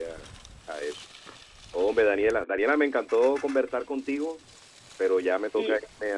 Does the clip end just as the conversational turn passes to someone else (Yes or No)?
No